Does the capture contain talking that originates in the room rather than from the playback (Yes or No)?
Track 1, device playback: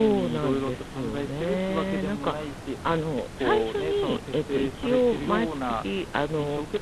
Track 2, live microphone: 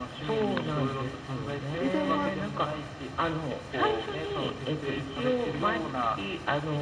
Yes